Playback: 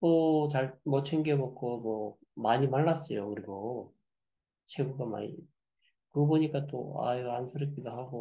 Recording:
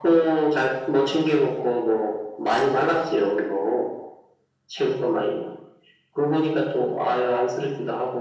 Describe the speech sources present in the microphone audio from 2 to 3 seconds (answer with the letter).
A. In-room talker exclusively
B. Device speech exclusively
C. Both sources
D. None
B